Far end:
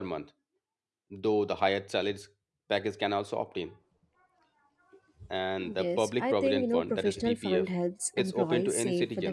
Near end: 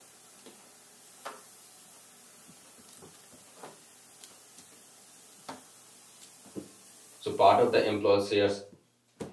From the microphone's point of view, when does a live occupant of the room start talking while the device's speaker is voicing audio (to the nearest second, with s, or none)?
7 s